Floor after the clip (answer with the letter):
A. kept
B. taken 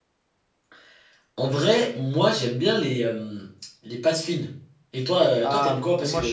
B